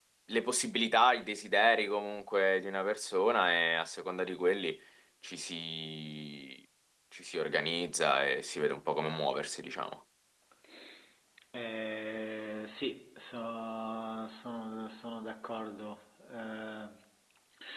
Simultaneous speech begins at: none

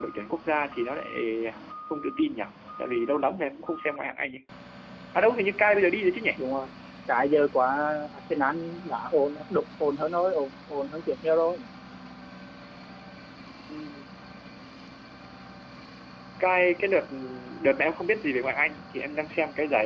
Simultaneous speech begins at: none

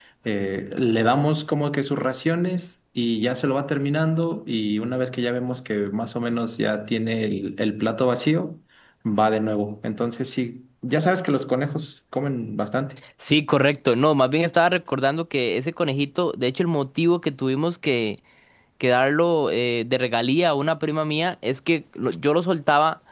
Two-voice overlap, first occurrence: none

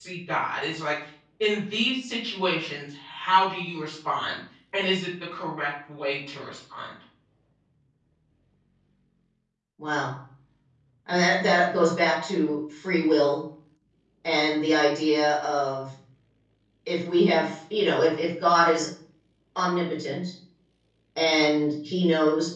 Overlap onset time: none

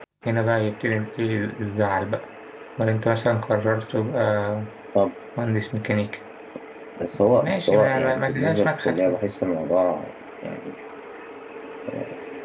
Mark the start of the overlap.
7 s

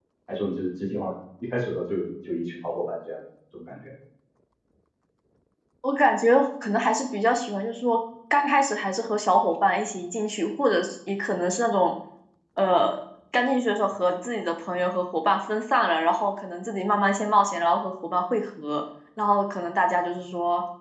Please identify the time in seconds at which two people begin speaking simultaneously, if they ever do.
none

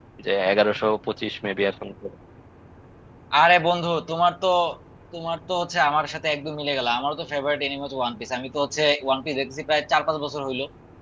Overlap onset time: none

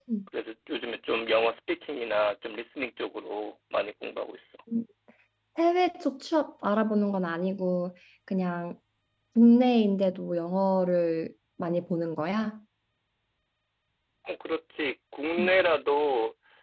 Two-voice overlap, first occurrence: none

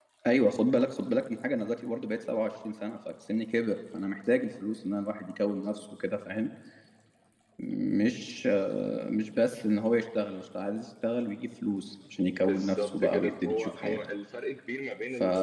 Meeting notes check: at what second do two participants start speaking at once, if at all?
12 s

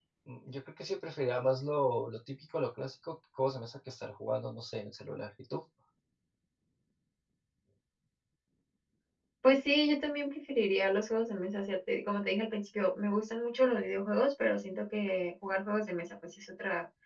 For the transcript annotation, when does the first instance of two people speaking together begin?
none

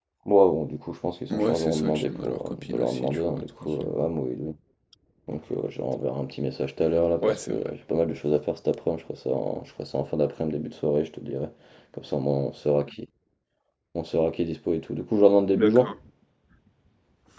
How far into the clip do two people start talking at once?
1 s

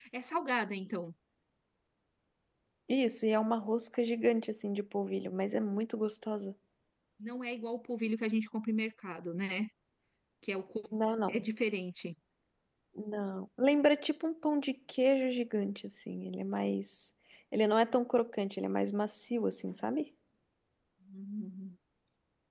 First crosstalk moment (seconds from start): none

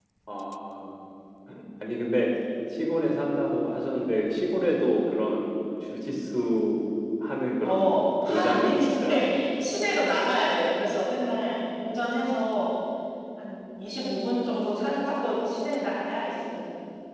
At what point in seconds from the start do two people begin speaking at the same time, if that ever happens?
8 s

